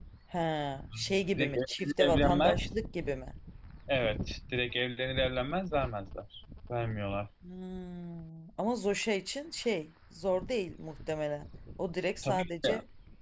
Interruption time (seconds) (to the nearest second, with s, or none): 1 s